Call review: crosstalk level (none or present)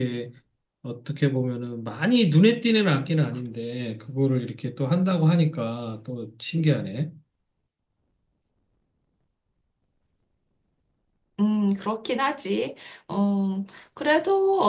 none